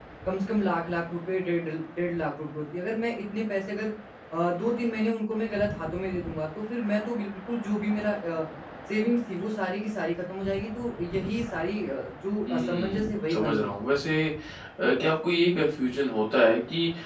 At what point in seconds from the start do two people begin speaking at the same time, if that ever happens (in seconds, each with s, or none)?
12.5 s